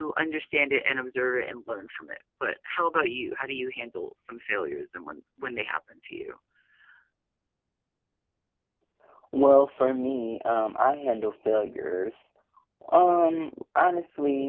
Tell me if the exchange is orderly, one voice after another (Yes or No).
Yes